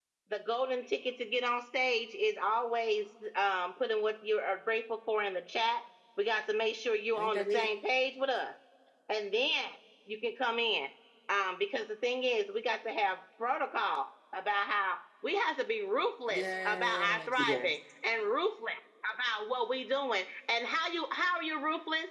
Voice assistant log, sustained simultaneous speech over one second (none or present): present